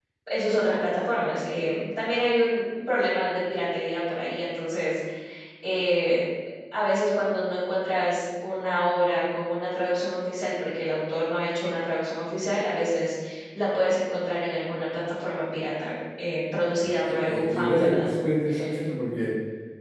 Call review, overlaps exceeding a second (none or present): present